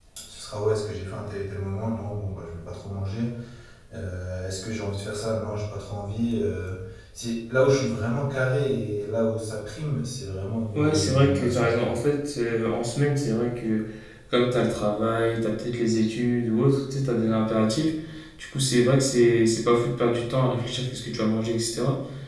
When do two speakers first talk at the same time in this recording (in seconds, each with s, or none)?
10.8 s